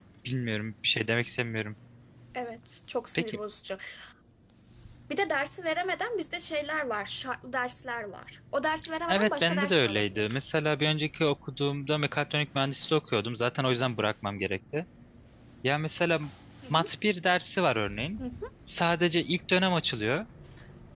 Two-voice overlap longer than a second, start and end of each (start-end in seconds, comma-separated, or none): 9.1-10.4